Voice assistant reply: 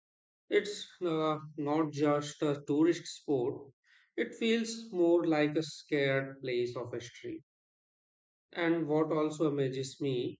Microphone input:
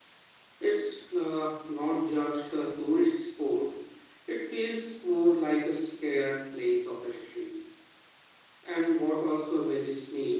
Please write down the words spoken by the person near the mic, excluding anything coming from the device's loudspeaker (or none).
none